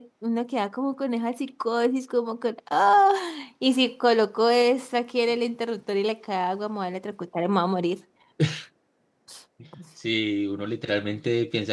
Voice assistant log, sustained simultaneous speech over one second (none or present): none